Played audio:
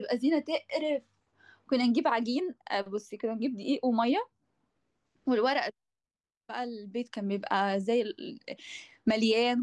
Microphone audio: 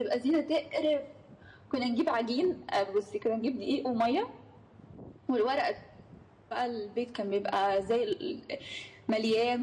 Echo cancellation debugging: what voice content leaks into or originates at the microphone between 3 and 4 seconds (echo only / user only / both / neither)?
echo only